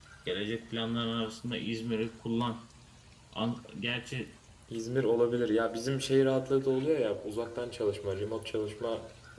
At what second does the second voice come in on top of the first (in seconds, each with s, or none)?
none